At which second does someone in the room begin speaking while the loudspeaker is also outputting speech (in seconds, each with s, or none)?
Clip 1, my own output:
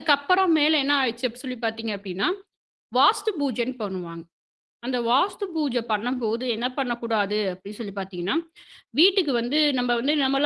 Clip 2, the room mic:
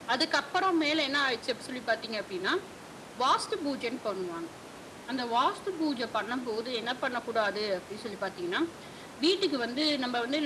none